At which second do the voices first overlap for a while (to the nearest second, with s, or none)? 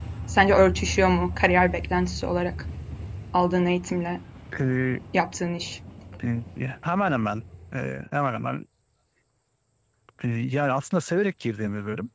none